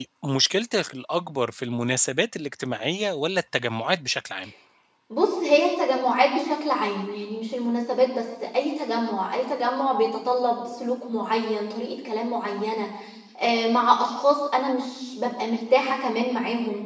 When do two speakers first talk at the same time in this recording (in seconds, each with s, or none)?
none